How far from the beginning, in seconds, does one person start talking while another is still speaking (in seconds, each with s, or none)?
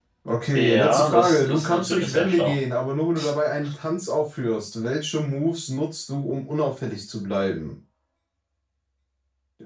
0.6 s